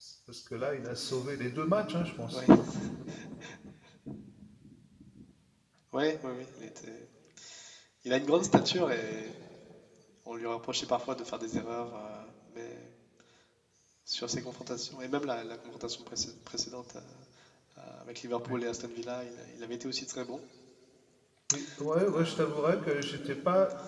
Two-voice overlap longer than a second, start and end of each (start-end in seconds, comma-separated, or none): none